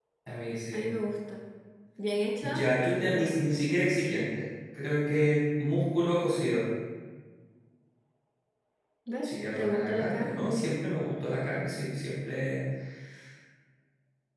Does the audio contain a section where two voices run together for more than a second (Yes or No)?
Yes